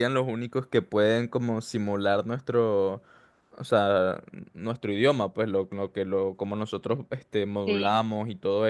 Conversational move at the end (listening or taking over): listening